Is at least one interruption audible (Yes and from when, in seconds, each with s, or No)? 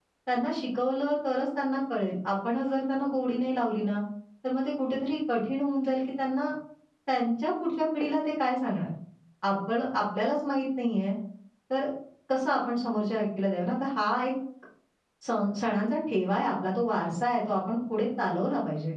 No